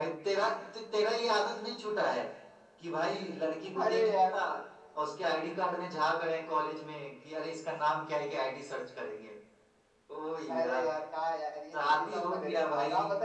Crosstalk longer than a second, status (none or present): present